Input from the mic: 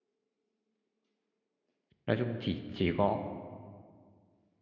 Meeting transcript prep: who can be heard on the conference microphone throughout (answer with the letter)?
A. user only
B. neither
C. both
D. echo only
A